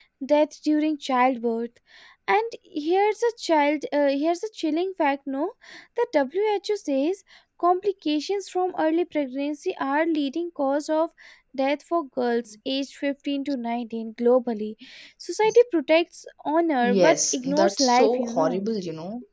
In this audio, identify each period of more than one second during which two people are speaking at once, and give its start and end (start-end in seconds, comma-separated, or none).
16.8-18.6